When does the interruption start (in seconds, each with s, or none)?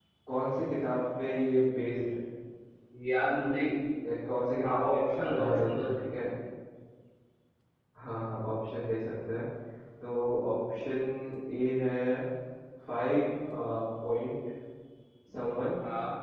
4.6 s